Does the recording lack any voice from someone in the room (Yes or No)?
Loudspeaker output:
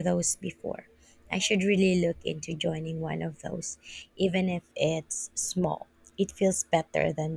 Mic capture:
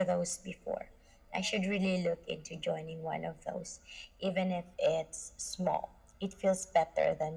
Yes